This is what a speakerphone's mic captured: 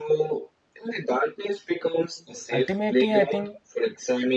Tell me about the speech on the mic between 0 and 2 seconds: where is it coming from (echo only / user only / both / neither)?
echo only